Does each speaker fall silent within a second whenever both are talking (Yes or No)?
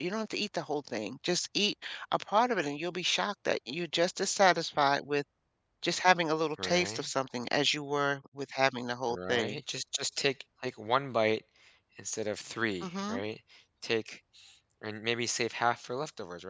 Yes